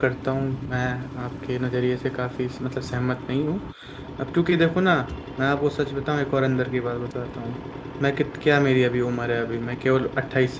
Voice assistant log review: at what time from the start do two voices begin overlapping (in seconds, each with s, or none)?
none